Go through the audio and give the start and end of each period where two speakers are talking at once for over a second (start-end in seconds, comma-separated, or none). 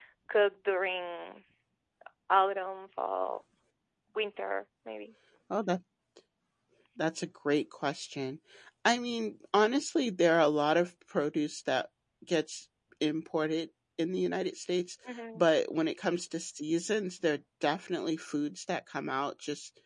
none